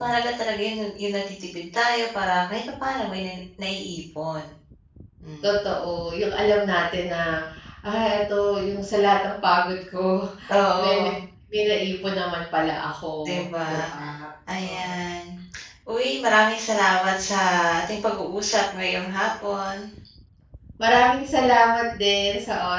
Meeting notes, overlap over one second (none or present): none